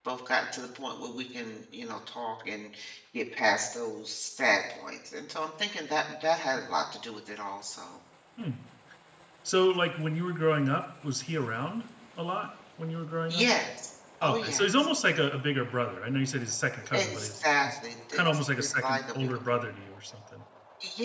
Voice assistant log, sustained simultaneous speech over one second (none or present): present